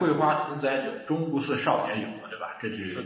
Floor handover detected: Yes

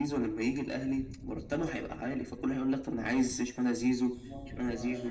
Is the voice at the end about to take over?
Yes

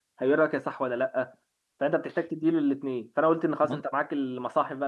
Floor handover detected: No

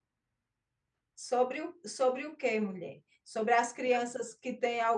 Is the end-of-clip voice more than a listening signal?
No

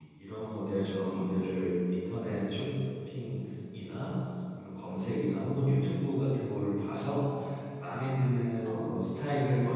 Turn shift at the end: No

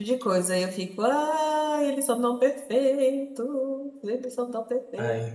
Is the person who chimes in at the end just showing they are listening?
No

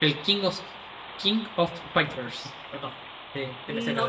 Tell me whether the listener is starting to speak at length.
Yes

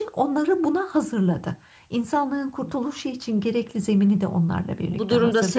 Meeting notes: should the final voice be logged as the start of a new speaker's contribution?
Yes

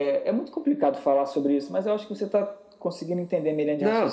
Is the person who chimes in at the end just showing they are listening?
No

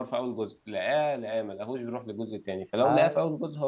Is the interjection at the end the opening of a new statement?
No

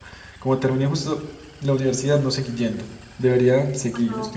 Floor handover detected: No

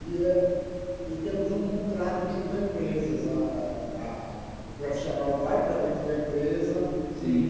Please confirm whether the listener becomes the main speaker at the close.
Yes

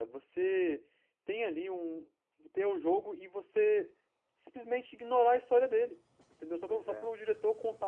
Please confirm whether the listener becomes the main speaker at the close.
No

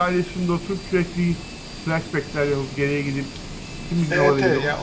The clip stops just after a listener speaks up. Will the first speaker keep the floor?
No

